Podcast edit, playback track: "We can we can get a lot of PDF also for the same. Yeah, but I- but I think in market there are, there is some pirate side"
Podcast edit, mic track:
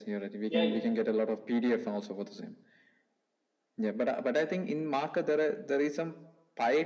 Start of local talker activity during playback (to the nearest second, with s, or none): 0 s